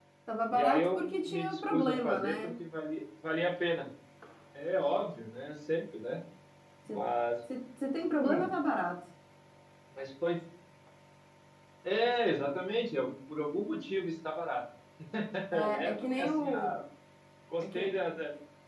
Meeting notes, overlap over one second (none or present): present